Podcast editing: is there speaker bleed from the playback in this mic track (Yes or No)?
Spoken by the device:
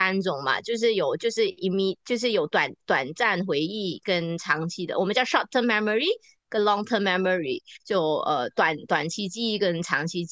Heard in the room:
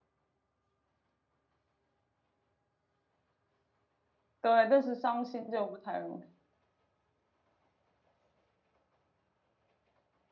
No